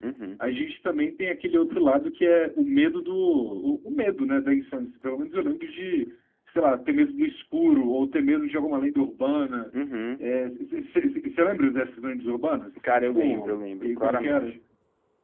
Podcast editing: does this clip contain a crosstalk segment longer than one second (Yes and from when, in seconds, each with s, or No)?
Yes, from 12.8 s